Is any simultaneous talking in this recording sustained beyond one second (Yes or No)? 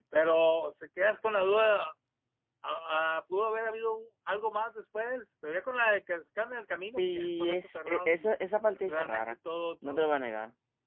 Yes